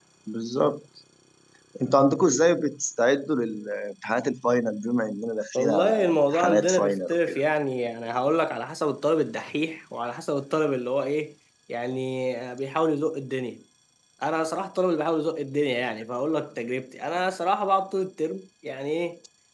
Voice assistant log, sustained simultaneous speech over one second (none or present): present